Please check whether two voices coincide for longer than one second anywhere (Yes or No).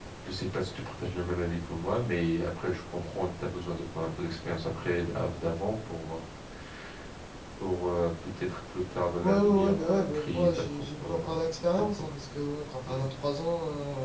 Yes